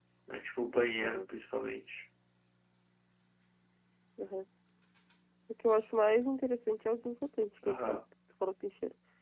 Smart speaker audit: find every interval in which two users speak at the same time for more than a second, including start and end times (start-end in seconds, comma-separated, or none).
none